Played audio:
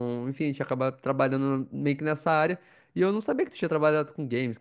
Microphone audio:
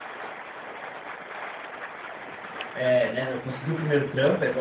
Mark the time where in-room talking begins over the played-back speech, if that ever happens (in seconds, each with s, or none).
2.7 s